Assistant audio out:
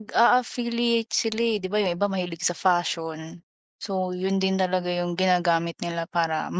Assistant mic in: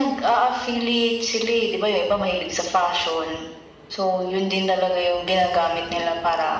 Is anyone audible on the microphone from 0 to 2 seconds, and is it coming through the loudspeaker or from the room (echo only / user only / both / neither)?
echo only